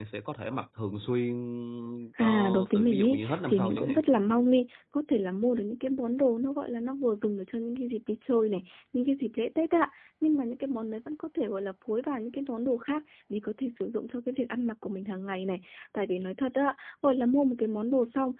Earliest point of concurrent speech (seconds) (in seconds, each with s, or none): 2.2 s